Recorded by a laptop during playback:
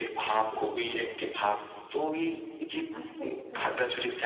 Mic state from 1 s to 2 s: echo only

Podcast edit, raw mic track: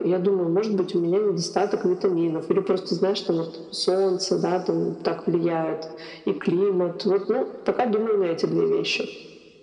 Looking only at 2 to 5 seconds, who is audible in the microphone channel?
echo only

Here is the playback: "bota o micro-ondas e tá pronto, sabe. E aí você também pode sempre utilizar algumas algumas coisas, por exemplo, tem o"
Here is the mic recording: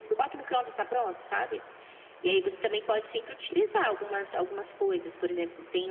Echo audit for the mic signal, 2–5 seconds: echo only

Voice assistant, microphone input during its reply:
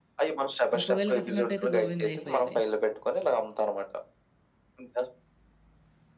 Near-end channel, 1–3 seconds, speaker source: both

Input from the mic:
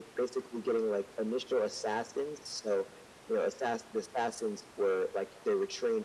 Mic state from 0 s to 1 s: echo only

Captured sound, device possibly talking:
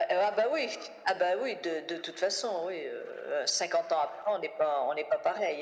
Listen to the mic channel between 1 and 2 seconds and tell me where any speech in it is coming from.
echo only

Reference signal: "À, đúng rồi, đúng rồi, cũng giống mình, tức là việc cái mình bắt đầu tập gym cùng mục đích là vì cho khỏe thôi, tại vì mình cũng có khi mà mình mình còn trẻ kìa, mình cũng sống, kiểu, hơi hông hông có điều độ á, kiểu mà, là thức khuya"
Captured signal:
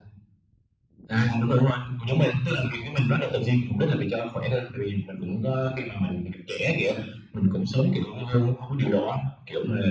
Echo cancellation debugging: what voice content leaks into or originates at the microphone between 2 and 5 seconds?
echo only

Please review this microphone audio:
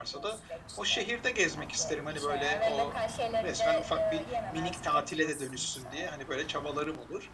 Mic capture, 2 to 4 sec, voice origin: both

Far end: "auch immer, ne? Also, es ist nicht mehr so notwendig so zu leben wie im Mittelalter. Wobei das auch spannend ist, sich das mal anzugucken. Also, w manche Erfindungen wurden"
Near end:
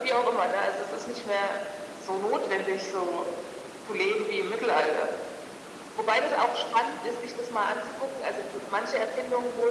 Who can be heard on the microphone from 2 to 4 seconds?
echo only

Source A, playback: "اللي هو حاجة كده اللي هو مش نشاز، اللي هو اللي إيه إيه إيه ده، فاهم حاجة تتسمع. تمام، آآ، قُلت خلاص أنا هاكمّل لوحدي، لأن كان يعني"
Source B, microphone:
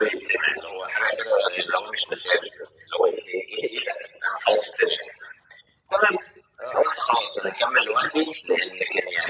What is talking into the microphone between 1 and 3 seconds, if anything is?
echo only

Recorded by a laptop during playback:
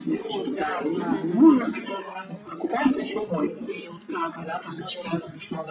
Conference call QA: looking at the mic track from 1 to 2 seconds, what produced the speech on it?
both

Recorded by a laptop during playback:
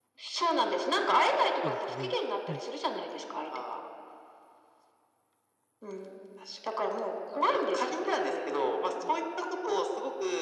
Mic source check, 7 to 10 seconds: echo only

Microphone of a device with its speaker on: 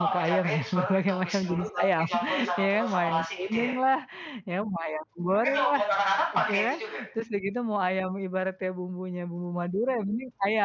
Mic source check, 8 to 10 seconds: user only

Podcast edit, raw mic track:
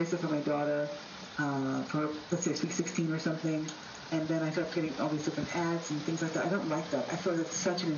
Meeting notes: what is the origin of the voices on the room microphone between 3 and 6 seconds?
echo only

